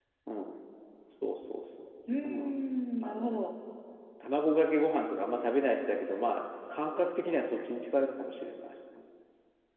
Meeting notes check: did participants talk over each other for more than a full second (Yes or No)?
No